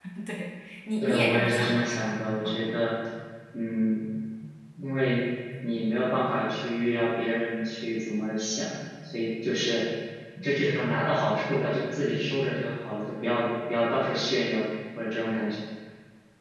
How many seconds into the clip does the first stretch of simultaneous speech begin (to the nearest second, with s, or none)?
1 s